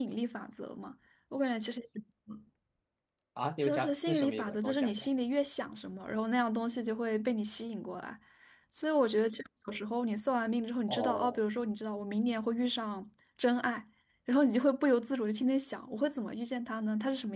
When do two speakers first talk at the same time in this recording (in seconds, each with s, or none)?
3.6 s